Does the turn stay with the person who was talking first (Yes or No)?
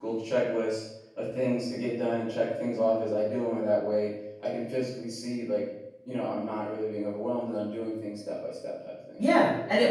No